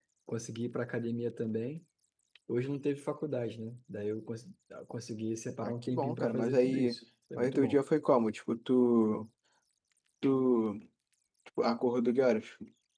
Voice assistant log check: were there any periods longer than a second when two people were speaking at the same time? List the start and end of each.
5.6-7.0

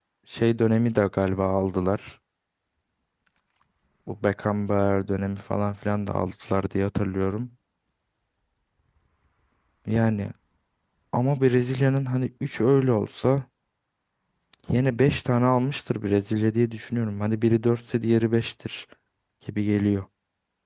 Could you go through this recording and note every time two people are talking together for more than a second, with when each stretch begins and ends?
none

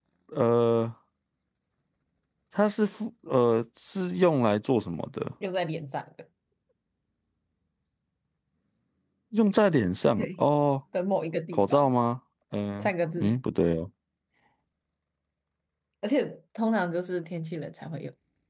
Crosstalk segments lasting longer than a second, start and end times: none

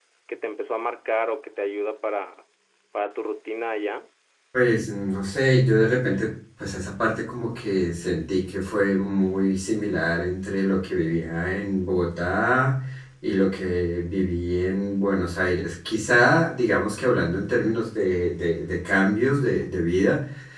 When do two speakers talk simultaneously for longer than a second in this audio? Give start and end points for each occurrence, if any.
none

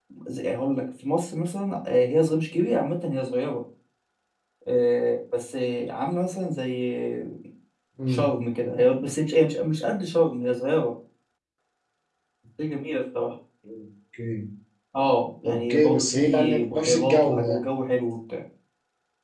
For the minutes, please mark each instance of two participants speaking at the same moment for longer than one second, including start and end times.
15.4-17.6

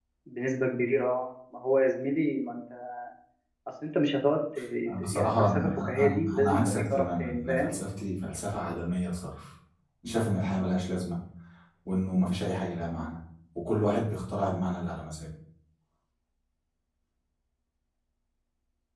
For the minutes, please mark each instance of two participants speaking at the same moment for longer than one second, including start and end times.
5.0-7.7

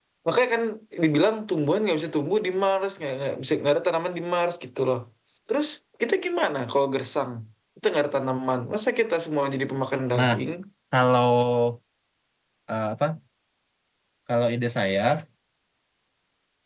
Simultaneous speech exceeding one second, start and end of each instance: none

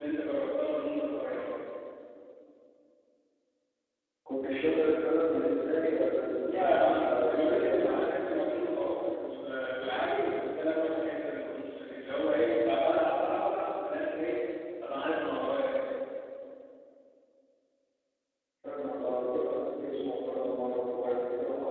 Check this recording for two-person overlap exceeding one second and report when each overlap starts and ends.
6.4-7.9

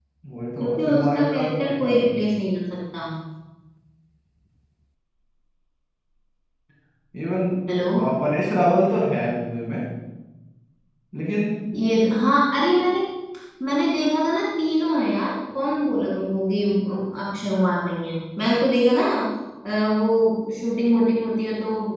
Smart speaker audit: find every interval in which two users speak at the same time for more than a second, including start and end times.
0.6-1.9

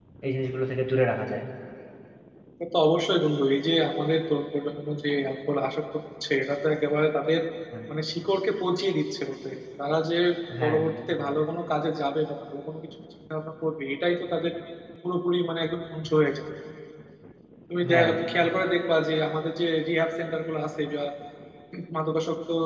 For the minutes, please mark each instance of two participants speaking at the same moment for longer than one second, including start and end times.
none

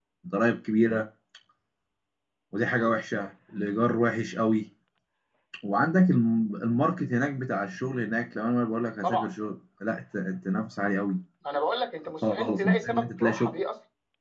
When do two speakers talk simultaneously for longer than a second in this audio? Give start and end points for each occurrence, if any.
12.2-13.6

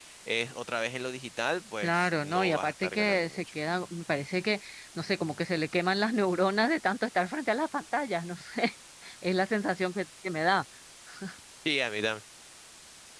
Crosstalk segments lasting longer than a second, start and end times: 1.8-3.4

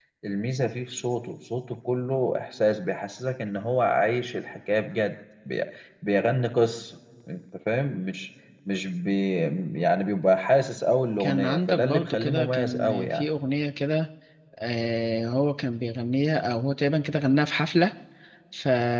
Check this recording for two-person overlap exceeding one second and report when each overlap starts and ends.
11.2-13.3

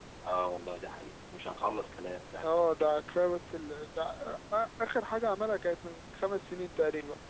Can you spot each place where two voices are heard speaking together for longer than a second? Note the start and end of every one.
none

